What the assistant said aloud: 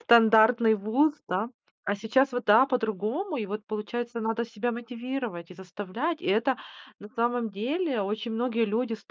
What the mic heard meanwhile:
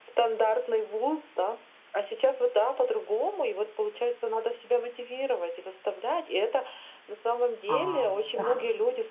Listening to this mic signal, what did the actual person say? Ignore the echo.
А, эха,

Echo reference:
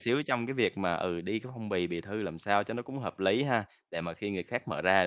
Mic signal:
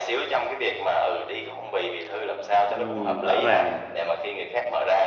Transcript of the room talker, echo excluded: Ừm, rõ ràng.

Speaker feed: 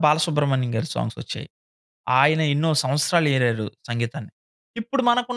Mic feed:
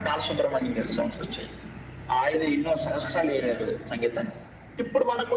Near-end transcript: none

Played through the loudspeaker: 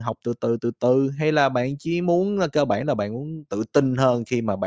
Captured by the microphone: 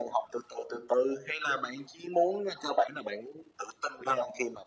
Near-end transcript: none

